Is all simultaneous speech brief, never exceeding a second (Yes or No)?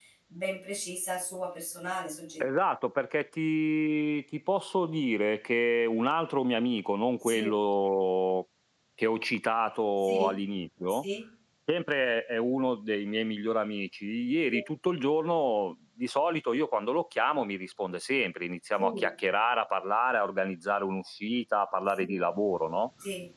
Yes